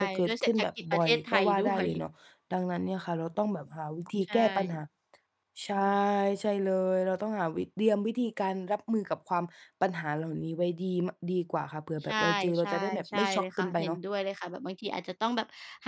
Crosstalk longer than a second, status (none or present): present